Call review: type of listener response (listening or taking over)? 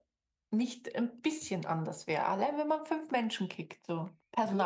taking over